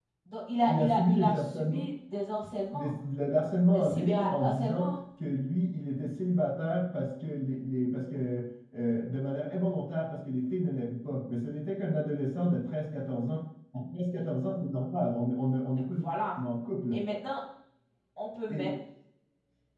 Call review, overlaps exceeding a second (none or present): present